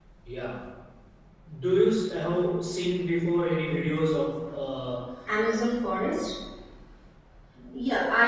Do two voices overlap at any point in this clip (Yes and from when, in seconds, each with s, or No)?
No